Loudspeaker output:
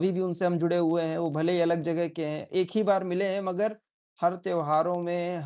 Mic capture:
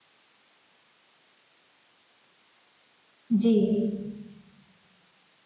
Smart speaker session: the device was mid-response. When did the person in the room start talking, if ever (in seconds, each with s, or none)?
3.3 s